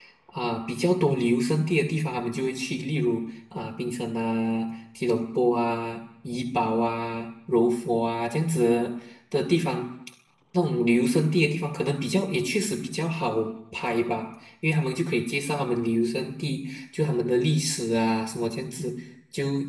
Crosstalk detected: No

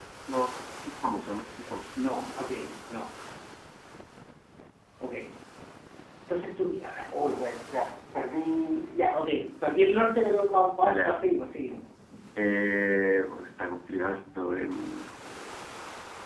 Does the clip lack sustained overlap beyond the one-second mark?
Yes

